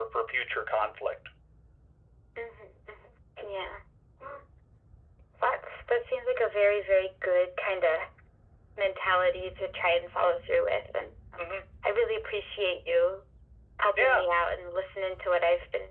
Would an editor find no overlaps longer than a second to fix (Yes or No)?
Yes